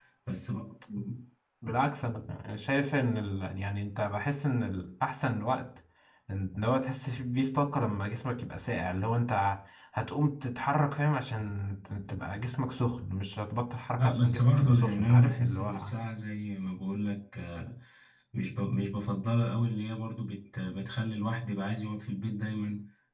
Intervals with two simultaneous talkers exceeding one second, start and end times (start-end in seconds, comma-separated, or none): 14.0-15.9